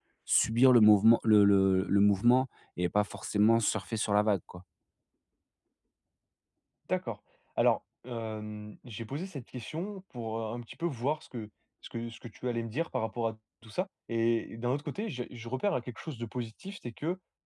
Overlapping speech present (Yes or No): No